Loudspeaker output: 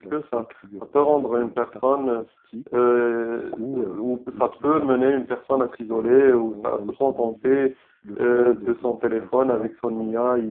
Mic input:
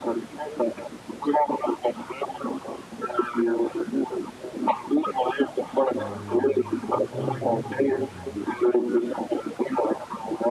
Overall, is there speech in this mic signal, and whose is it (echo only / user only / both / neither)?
both